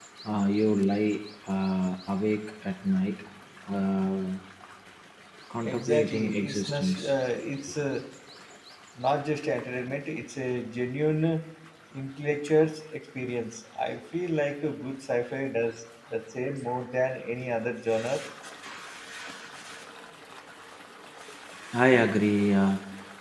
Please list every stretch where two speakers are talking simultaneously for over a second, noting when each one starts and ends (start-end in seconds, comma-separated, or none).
5.6-7.1